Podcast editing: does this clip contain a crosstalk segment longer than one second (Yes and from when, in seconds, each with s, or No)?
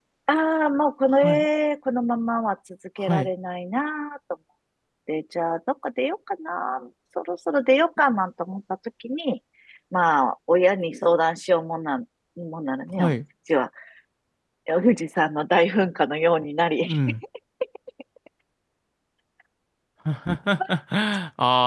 No